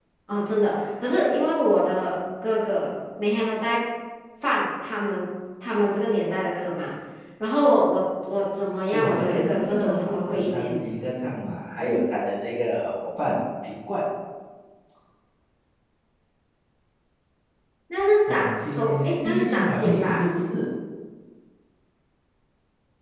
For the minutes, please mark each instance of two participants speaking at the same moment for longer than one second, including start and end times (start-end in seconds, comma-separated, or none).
8.9-10.8, 18.3-20.2